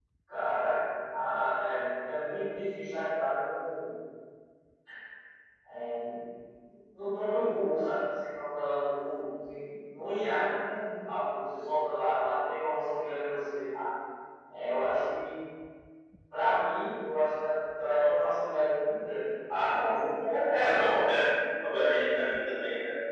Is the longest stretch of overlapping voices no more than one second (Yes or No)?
Yes